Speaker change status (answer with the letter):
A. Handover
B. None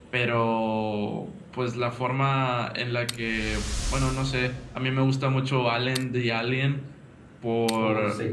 B